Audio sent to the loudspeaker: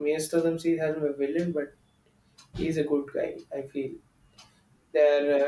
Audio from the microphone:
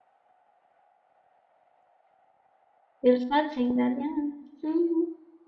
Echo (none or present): none